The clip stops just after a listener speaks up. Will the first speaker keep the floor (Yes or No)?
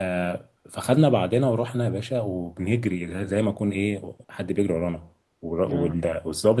Yes